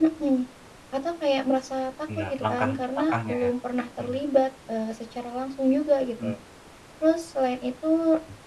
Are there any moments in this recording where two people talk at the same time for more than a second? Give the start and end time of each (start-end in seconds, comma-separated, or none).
2.3-3.5